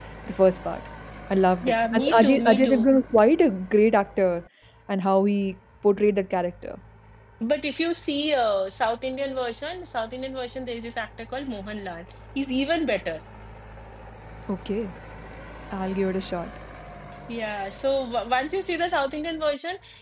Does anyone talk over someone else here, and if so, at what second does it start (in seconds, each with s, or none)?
1.6 s